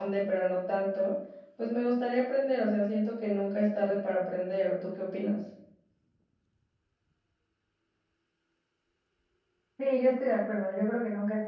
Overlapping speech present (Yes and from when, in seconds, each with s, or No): No